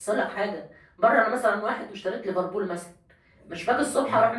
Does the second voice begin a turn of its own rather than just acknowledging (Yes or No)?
No